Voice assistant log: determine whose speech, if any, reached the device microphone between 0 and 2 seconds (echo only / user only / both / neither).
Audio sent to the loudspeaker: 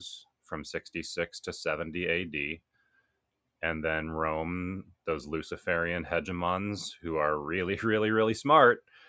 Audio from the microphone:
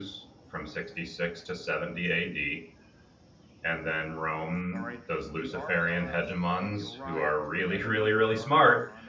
echo only